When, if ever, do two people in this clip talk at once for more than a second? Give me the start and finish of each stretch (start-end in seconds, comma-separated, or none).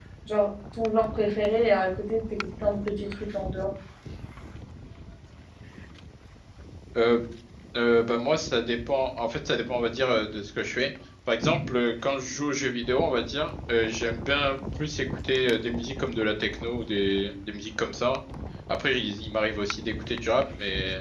none